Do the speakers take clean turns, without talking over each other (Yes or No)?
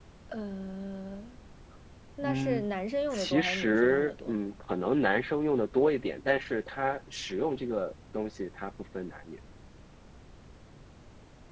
No